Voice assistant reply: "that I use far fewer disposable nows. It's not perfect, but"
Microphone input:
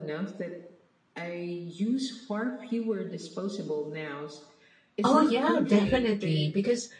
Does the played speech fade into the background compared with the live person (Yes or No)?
Yes